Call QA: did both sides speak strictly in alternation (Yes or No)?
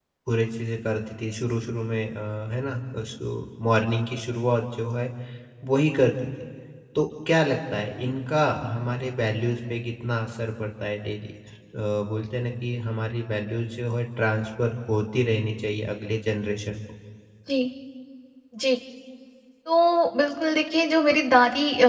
Yes